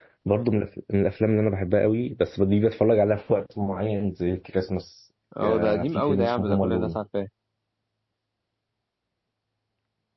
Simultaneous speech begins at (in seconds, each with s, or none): 5.3 s